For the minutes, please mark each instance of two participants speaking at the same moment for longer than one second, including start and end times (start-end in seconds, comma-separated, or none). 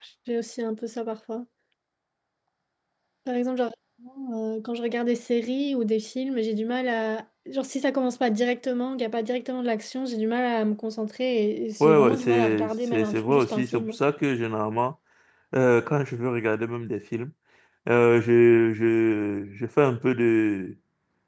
11.8-14.0